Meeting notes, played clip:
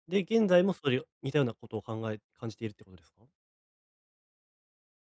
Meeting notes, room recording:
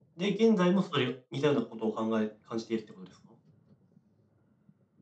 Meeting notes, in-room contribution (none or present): none